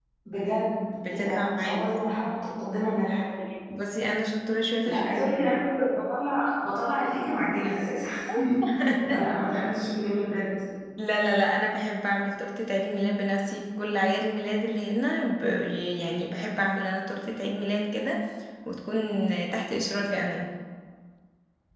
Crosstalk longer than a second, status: present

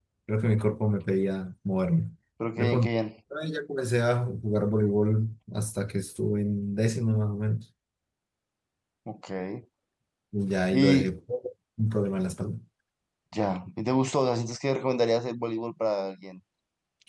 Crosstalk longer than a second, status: none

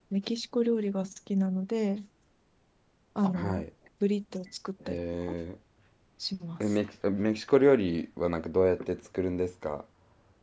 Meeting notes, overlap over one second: none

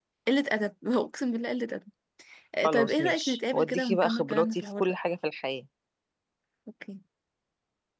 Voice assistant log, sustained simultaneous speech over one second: present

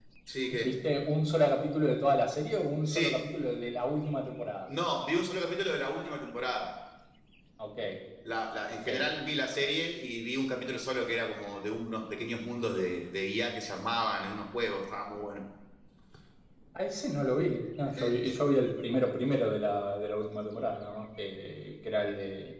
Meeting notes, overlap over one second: none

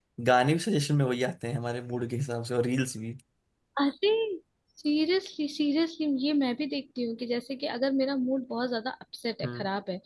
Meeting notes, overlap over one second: none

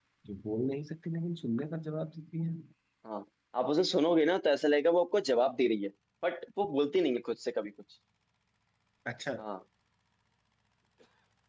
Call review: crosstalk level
none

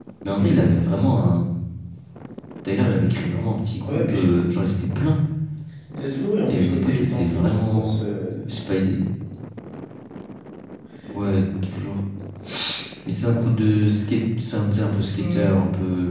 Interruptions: present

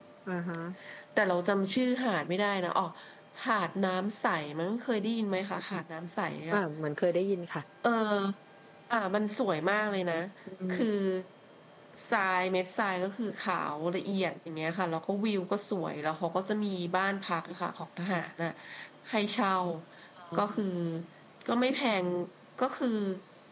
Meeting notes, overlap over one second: none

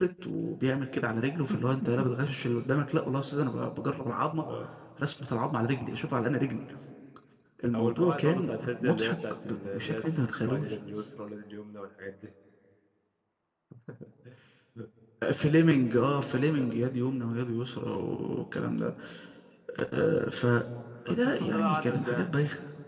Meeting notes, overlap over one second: present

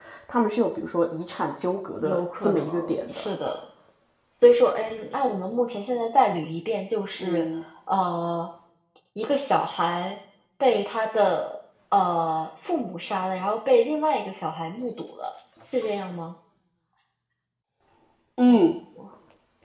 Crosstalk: present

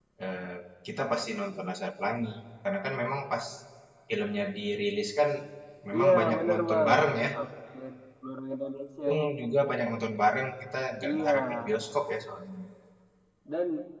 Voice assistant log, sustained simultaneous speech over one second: present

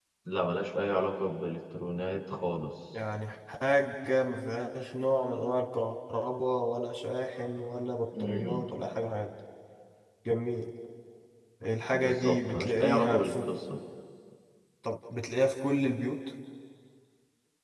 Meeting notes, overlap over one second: present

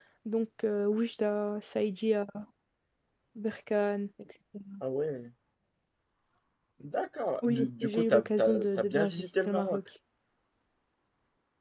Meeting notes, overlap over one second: present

